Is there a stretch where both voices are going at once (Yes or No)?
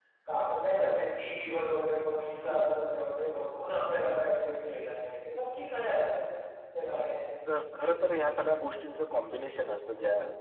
No